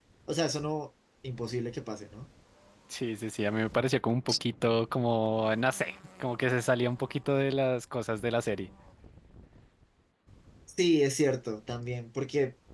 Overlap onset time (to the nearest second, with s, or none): none